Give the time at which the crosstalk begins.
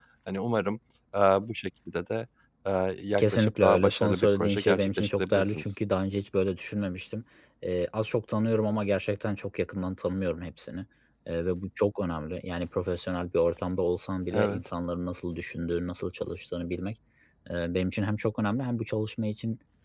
3 s

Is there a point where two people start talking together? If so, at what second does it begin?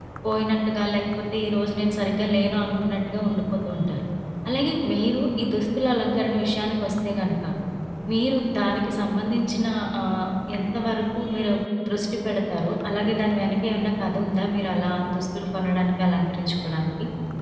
none

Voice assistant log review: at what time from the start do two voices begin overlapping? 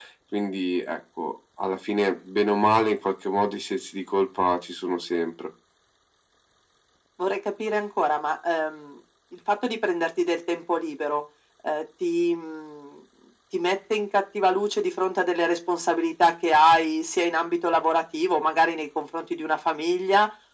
none

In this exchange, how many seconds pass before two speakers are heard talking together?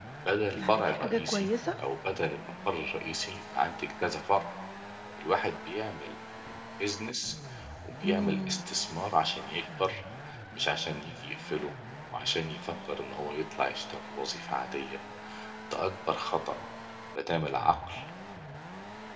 1 s

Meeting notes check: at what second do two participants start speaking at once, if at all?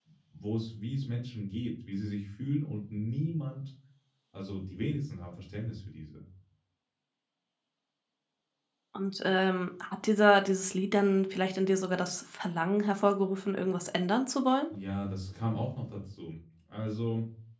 none

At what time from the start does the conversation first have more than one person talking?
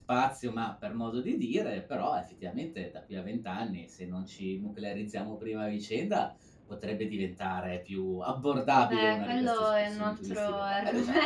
9 s

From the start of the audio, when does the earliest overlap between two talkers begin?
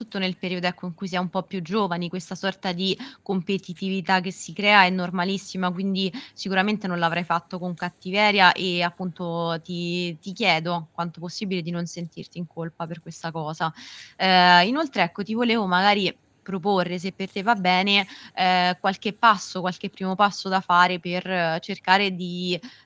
none

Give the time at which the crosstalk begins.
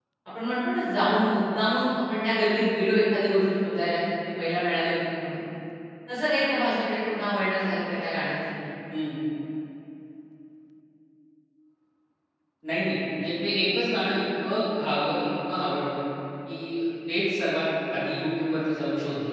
none

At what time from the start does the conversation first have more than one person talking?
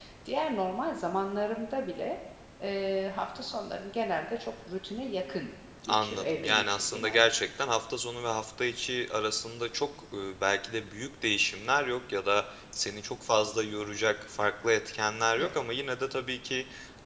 6 s

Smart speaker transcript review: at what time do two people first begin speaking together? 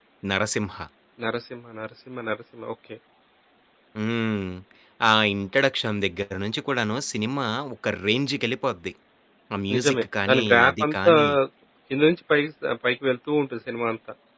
10 s

